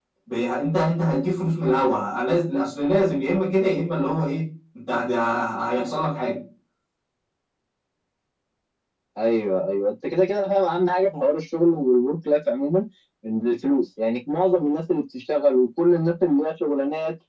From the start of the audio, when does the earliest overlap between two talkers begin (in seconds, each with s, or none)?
none